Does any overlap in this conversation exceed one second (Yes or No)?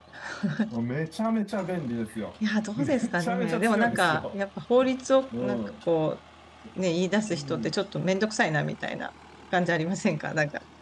Yes